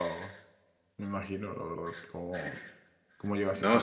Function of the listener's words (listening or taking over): taking over